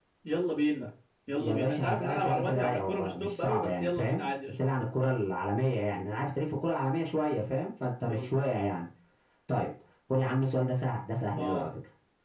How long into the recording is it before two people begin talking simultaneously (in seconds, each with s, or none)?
1.4 s